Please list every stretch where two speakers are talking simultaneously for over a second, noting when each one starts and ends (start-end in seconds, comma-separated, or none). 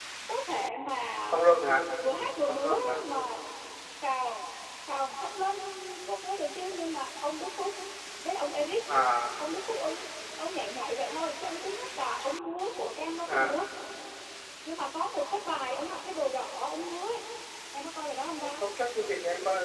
none